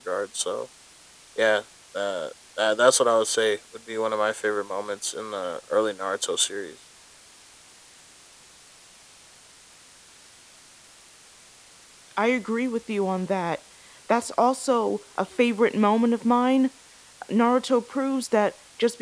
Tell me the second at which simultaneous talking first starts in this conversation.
none

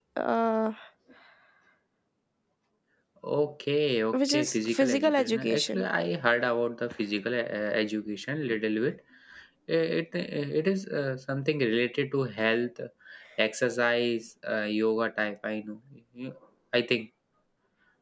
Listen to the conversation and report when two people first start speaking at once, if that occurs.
4.1 s

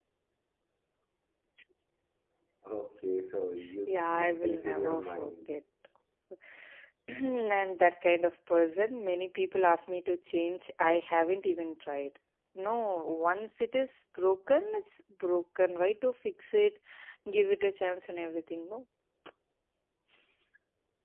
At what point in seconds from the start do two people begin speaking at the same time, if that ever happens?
3.9 s

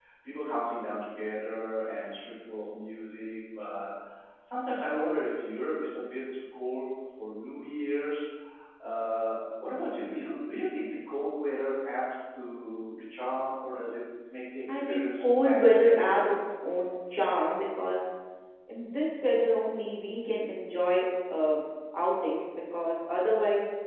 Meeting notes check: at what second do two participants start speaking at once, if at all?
14.7 s

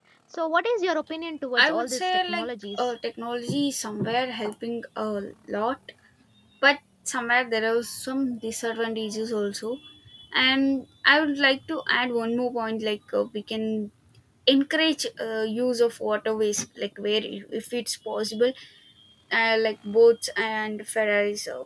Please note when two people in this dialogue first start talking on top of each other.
1.6 s

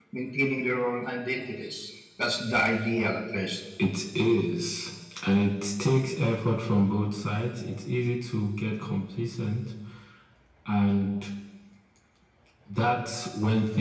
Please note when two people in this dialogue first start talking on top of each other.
none

